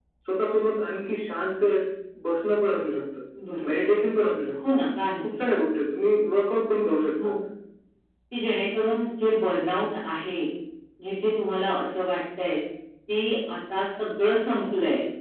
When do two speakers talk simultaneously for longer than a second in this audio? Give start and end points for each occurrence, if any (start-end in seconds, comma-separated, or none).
none